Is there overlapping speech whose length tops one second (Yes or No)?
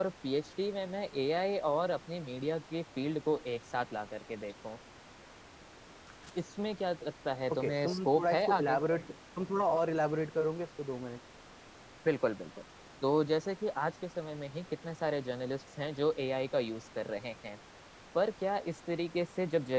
Yes